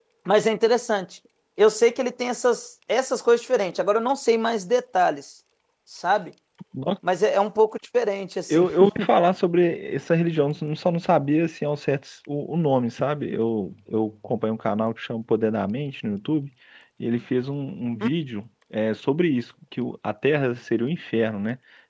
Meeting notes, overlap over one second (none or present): none